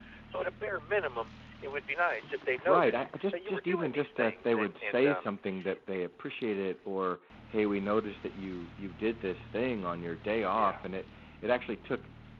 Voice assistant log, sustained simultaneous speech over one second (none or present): present